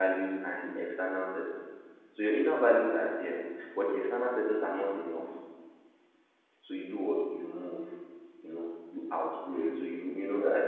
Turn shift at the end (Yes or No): No